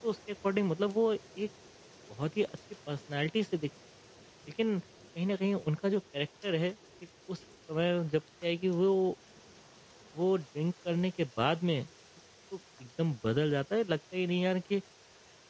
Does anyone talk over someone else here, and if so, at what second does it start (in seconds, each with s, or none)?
none